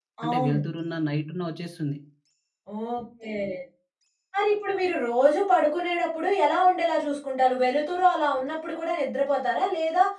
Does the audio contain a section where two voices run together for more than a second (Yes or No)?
No